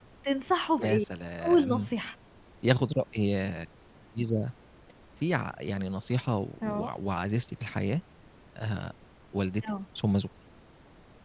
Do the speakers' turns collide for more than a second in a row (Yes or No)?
No